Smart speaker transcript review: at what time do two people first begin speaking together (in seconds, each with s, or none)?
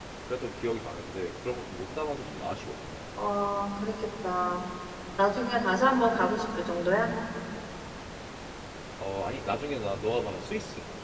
none